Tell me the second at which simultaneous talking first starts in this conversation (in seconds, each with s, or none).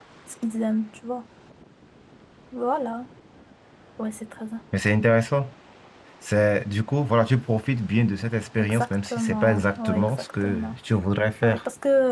8.6 s